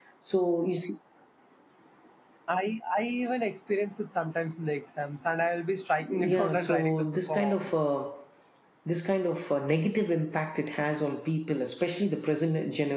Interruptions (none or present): present